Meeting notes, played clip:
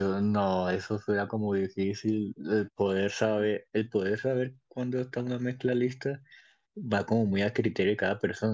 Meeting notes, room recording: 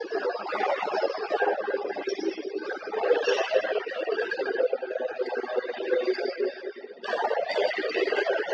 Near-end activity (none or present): none